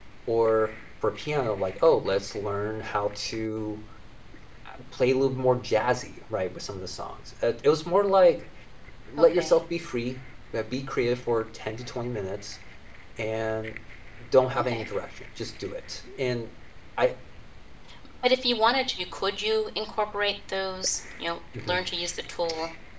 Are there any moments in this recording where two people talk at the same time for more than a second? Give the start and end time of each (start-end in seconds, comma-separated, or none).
none